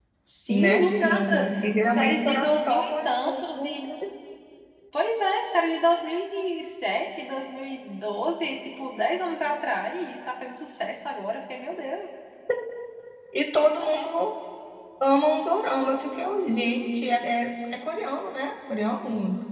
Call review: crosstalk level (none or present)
present